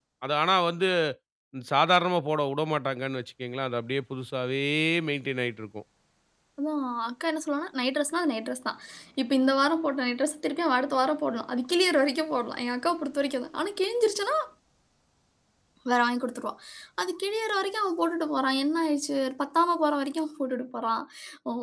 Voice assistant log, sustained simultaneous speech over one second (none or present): none